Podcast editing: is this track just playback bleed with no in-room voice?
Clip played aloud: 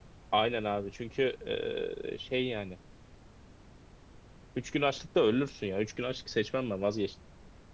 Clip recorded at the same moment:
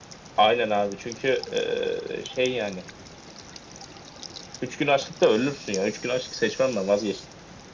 Yes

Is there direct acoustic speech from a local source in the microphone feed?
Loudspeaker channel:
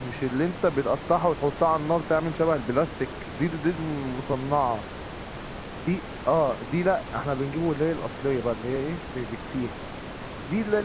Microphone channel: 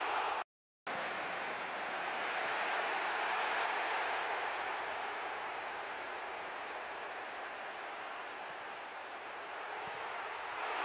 No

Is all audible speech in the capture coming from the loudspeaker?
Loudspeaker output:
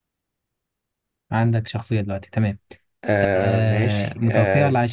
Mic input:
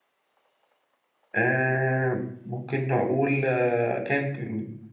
No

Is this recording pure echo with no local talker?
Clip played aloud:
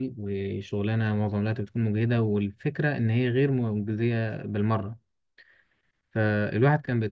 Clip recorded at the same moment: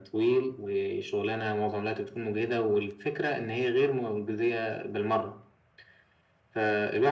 Yes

